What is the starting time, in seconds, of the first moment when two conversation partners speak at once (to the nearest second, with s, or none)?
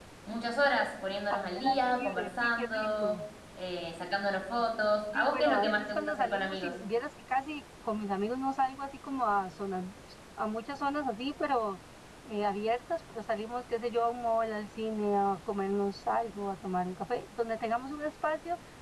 1 s